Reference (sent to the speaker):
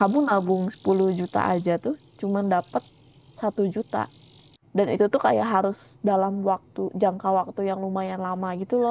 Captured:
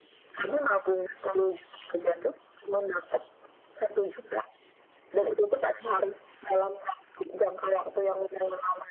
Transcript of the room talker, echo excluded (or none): none